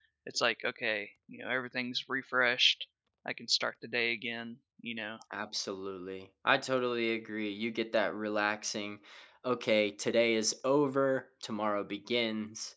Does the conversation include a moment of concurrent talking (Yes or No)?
No